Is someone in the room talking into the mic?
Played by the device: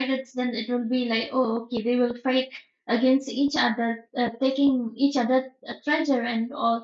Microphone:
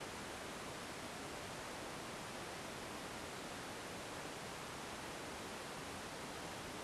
No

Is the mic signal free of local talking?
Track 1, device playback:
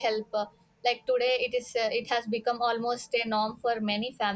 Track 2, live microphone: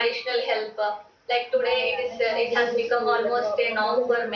No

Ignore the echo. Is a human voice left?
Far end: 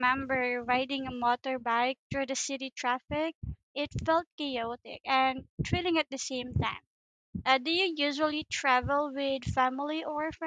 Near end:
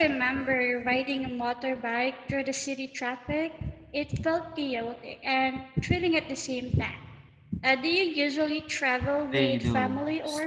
Yes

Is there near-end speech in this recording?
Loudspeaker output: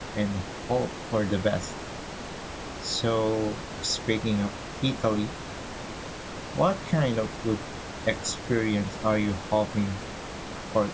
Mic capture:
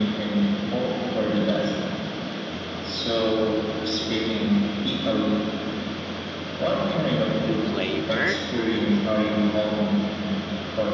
Yes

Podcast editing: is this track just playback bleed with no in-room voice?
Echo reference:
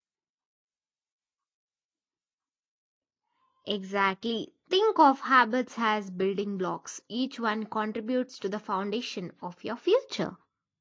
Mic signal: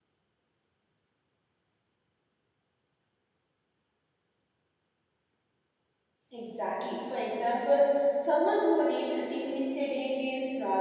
No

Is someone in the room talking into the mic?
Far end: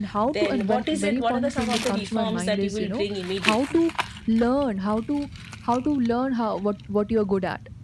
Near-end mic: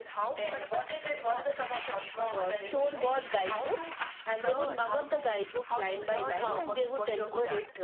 Yes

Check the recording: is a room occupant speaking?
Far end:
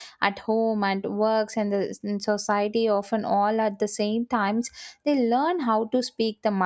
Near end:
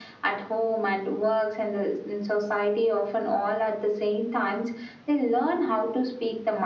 No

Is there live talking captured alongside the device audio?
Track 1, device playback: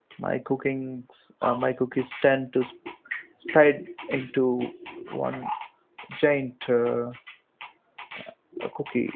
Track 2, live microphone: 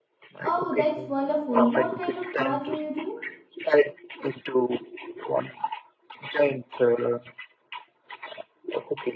Yes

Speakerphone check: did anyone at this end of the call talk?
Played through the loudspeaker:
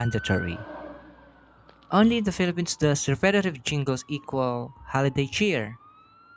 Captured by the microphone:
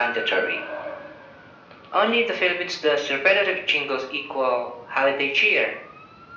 No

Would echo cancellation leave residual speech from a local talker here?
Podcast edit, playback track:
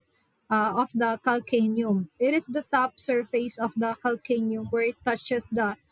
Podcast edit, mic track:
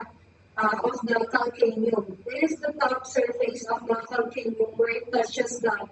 No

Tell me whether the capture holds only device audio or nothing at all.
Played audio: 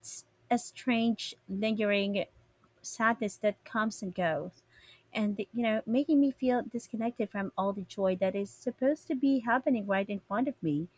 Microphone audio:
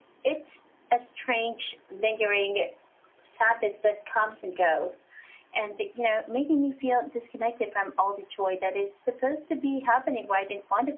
Yes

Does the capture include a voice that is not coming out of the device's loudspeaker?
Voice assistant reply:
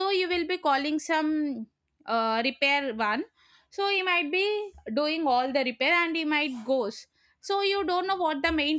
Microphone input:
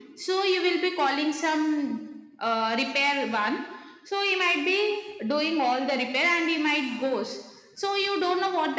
No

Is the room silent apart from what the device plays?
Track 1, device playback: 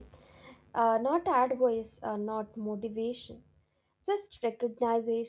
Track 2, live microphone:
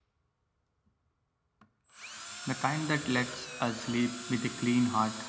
No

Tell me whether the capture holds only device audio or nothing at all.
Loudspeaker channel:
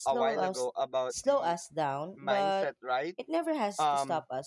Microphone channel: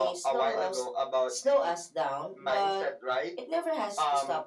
Yes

